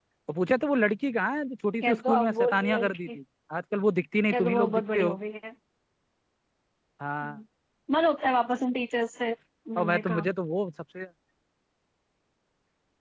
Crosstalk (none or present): present